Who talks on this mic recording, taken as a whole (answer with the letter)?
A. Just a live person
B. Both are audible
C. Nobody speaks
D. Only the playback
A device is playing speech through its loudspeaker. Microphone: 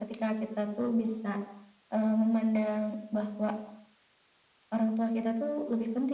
D